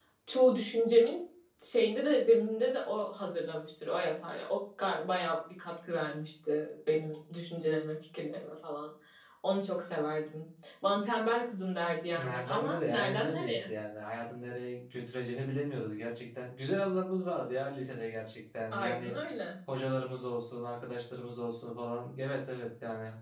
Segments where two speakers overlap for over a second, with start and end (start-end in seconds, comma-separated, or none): 12.1-13.7